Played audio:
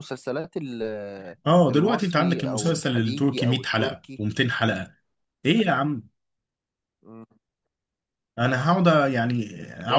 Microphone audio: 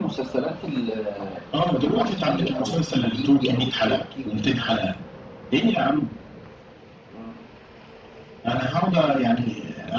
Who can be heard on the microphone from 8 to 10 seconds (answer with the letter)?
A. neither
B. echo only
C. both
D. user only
B